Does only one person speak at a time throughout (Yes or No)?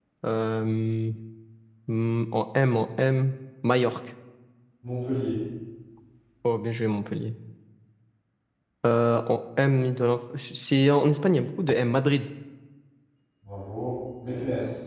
Yes